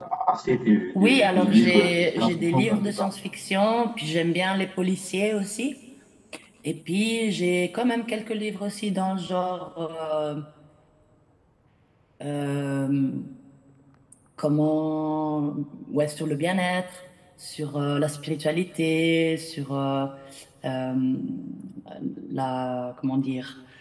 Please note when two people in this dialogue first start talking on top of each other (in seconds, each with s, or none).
1.0 s